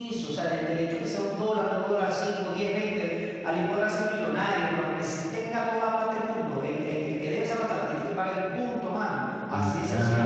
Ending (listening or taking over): listening